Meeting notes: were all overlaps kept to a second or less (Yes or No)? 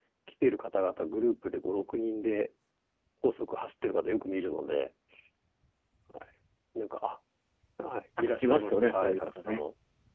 No